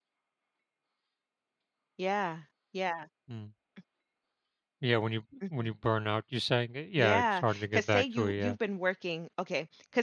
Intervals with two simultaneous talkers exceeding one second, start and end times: 7.0-8.5

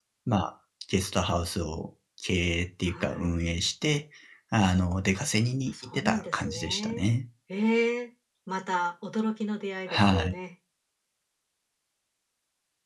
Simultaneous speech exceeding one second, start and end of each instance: 5.9-7.2

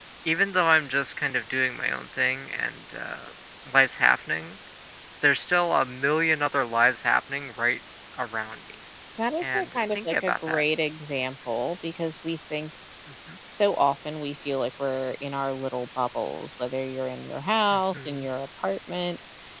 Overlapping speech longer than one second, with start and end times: 9.4-10.6

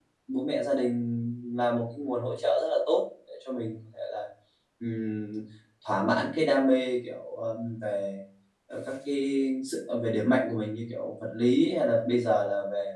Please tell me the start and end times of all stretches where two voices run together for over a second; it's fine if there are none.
none

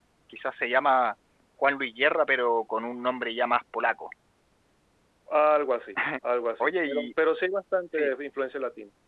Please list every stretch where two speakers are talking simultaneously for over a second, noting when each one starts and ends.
none

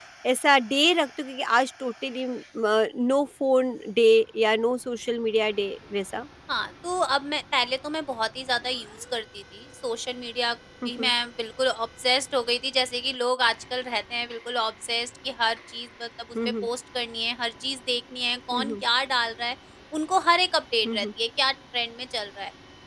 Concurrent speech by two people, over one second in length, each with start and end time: none

